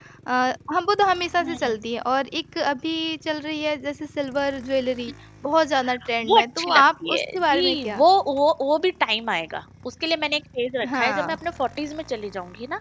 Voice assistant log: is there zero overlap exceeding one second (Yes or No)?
No